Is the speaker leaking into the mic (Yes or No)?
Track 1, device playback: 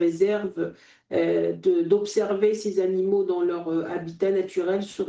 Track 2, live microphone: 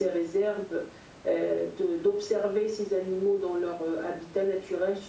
Yes